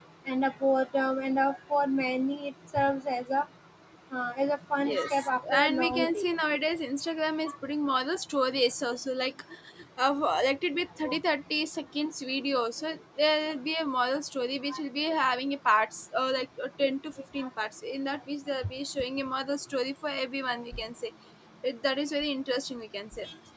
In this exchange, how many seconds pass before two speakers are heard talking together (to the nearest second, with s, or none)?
5 s